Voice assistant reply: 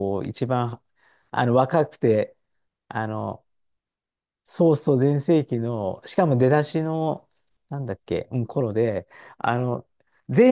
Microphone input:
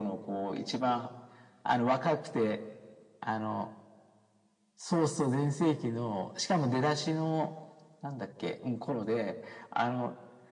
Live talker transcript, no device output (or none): none